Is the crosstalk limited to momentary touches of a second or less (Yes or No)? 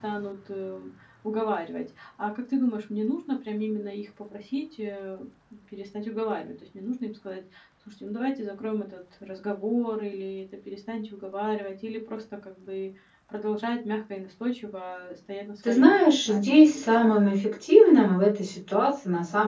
No